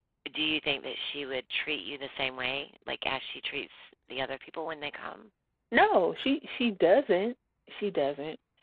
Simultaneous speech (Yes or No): No